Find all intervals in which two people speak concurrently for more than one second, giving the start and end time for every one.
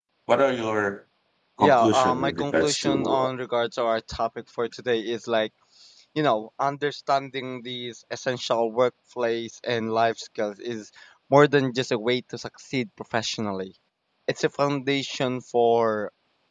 1.6-3.3

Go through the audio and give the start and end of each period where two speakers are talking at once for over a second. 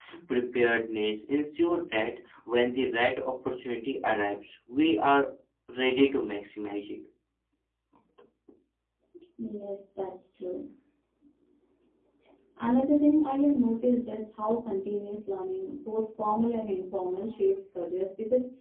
none

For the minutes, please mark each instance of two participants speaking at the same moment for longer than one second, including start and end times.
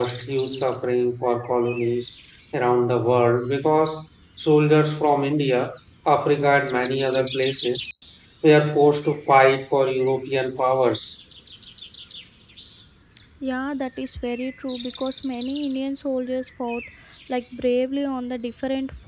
none

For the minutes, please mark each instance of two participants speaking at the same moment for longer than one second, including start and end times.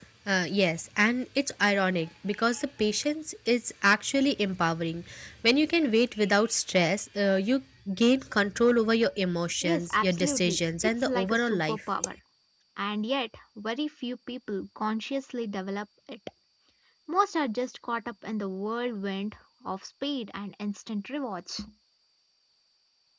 9.6-11.8

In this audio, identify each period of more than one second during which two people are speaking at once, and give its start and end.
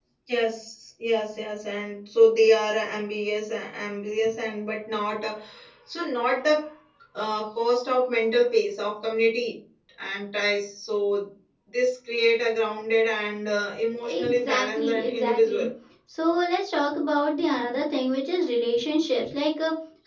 14.2-15.7

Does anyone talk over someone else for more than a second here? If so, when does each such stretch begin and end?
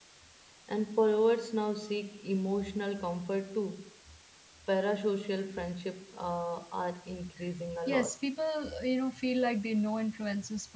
none

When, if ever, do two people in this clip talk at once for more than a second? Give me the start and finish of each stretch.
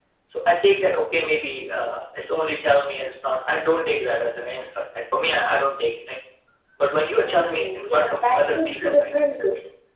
7.2-9.1

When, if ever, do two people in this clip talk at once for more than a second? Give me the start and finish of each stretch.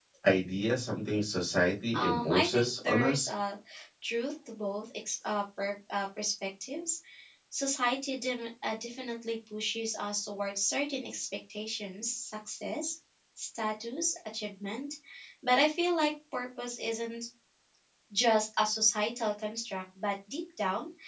1.9-3.3

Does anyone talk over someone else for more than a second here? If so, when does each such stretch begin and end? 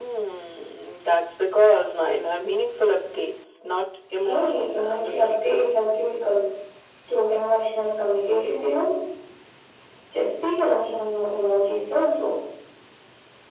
4.2-5.8

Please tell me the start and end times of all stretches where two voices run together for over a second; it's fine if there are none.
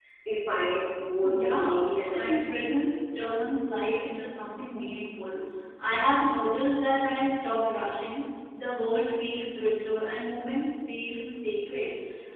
1.2-2.7

